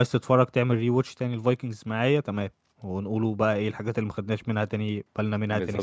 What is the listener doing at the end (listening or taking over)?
taking over